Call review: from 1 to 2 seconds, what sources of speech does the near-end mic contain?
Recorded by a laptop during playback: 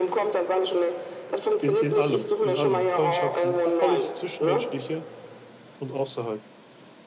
both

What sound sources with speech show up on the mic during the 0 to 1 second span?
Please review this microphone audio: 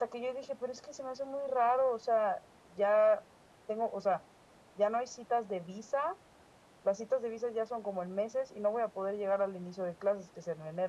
echo only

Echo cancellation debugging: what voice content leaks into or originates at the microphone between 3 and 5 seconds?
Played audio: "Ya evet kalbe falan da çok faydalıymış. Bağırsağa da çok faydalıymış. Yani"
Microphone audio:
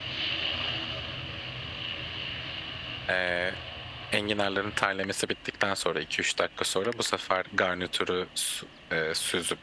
user only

